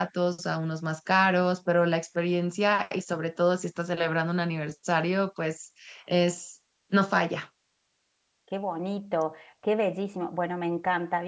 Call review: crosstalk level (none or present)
none